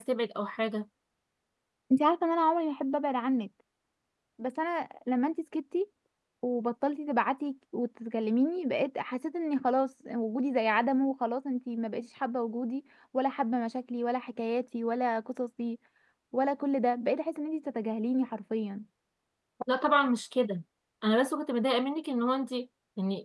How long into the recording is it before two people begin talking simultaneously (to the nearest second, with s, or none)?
none